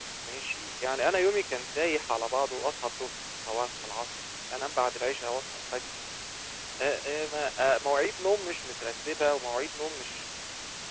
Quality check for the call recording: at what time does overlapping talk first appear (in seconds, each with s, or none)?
none